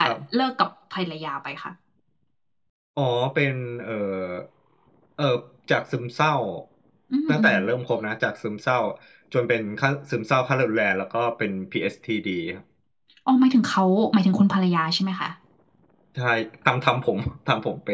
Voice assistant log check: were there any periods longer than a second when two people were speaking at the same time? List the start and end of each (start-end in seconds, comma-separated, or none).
none